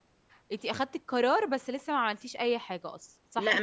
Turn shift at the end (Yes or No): Yes